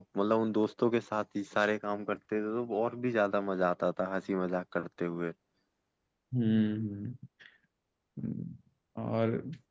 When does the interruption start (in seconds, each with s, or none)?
none